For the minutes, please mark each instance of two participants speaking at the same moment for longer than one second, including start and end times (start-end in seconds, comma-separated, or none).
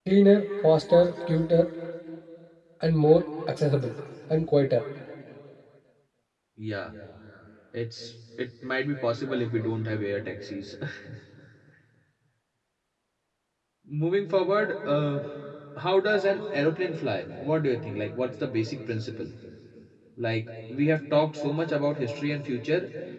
none